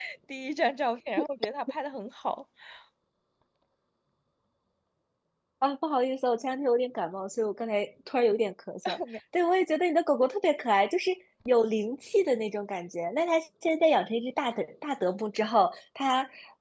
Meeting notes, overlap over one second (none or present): none